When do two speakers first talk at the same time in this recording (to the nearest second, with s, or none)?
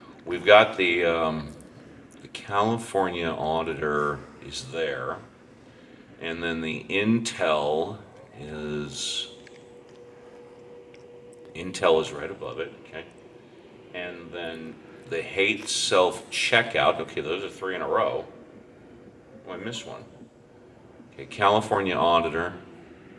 none